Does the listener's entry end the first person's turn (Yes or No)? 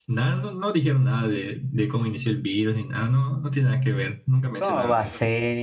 Yes